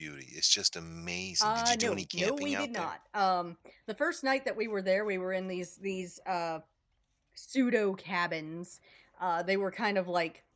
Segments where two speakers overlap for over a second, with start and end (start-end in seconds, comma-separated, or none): 1.4-2.9